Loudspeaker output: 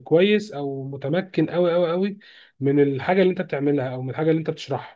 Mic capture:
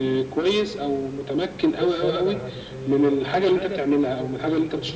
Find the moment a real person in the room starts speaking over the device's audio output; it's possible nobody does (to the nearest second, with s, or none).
2 s